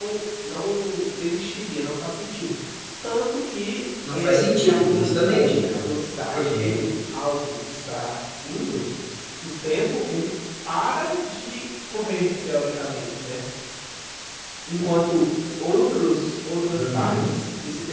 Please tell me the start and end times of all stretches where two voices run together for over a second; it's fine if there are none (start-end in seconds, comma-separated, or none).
4.1-5.8